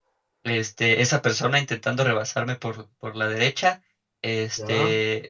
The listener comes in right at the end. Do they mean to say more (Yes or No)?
No